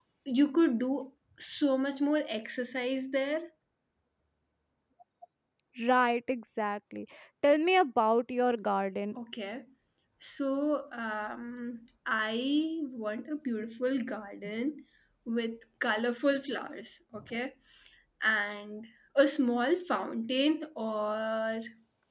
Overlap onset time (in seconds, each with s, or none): none